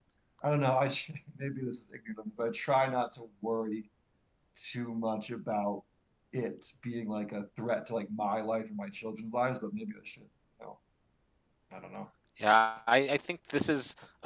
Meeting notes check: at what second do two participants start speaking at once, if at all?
none

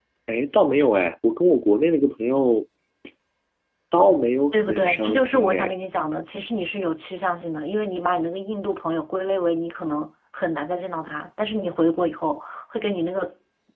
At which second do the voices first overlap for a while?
5 s

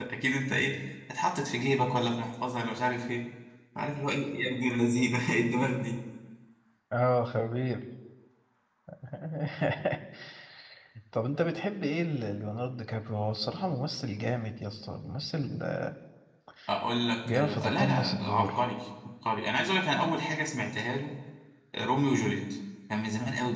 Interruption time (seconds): 17 s

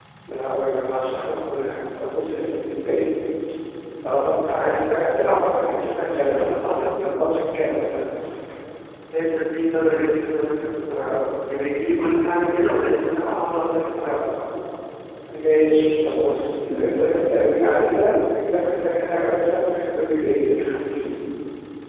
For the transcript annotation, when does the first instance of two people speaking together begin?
none

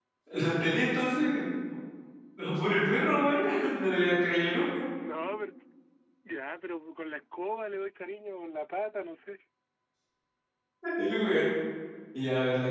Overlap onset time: none

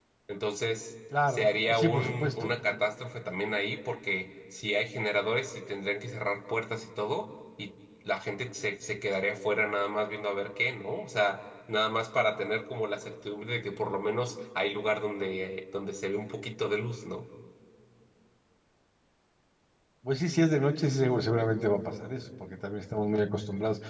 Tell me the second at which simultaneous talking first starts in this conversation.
1 s

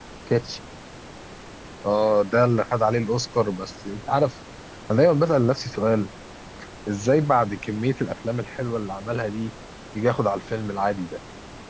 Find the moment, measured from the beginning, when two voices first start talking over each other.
none

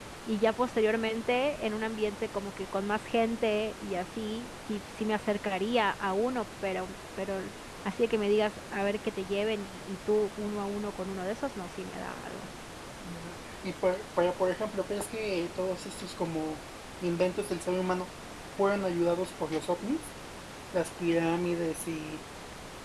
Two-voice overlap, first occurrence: none

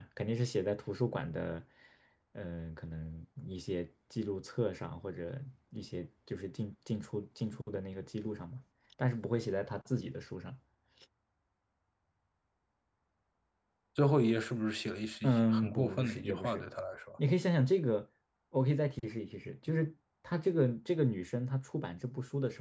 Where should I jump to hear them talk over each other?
15 s

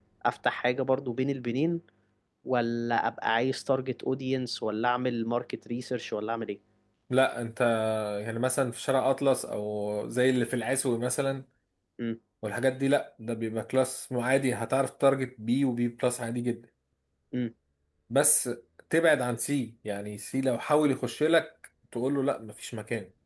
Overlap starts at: none

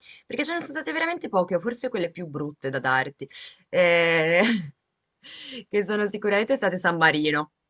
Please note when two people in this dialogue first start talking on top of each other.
none

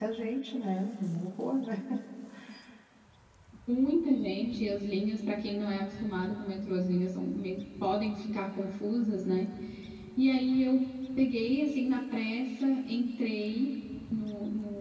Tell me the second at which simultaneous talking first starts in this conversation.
none

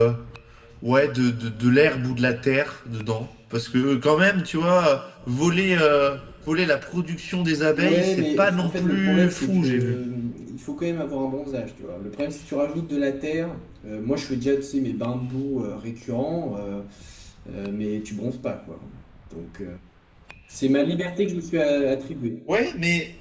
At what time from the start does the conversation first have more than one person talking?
8 s

